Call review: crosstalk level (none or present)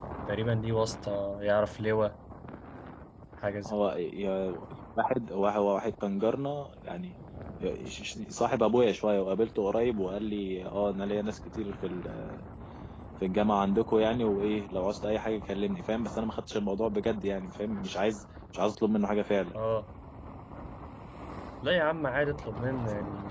none